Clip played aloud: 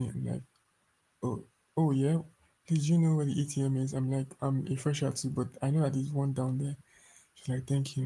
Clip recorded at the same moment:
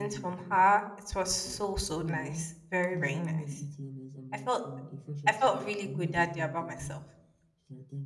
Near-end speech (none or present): present